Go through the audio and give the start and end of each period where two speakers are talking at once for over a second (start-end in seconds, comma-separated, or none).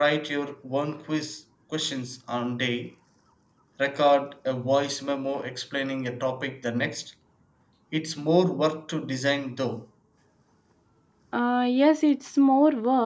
none